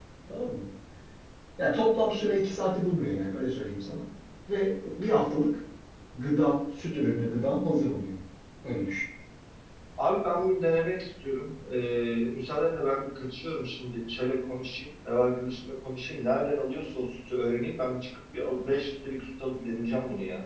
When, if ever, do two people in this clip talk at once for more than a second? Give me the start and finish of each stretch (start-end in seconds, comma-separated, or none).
none